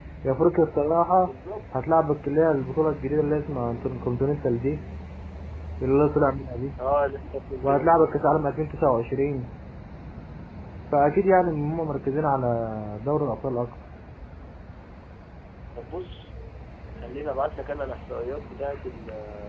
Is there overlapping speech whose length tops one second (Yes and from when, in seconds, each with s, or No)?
No